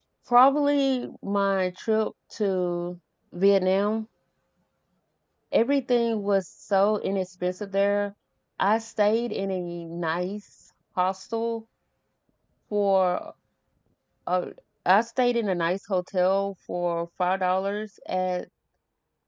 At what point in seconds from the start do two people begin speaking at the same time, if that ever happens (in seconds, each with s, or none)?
none